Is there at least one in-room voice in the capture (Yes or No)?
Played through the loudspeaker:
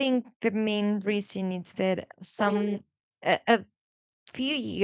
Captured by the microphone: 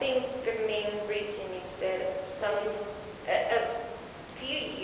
No